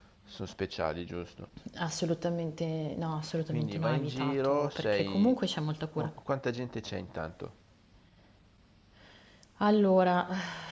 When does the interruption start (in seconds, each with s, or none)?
3.5 s